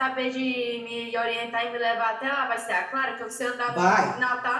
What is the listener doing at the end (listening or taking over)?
listening